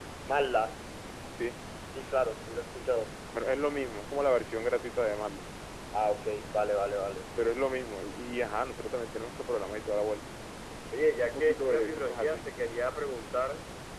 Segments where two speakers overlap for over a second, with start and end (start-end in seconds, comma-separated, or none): 11.2-12.4